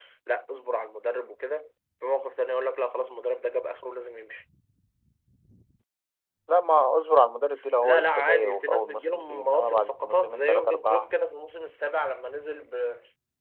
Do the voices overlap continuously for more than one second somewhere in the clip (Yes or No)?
Yes